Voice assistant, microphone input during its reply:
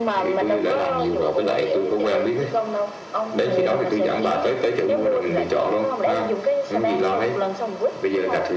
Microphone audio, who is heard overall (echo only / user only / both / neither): both